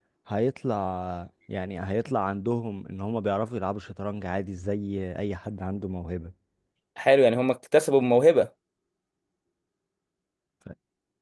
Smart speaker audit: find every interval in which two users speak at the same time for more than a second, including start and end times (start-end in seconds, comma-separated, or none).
none